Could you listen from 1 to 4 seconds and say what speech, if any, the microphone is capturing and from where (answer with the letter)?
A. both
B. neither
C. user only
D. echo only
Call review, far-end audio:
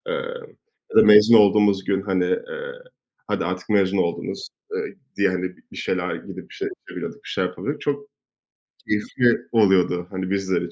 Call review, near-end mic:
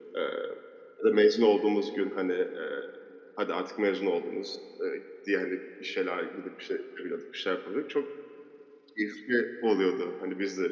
D